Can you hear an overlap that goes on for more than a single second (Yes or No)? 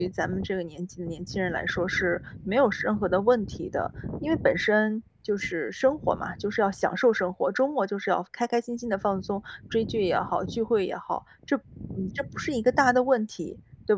No